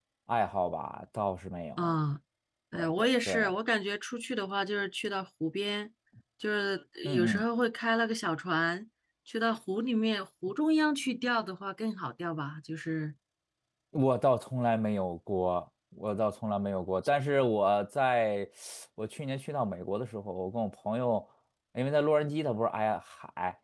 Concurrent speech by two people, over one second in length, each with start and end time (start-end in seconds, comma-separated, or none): none